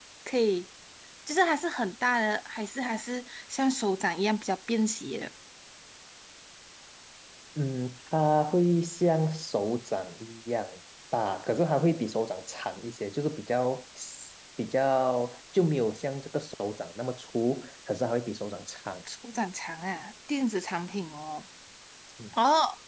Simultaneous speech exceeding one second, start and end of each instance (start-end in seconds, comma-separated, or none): none